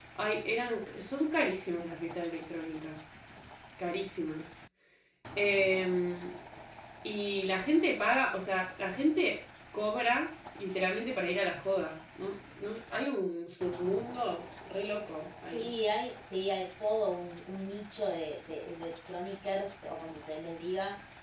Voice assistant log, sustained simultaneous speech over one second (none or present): none